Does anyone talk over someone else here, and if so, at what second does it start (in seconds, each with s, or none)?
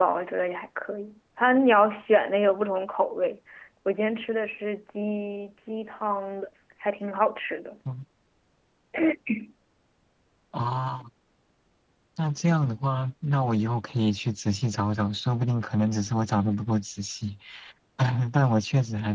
none